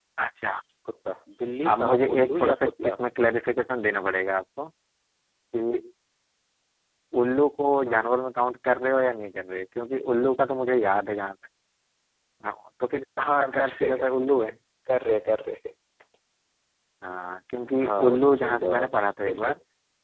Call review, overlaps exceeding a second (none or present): present